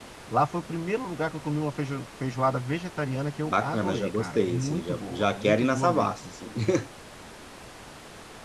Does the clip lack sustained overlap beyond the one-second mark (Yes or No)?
No